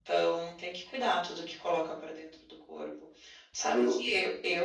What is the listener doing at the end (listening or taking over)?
listening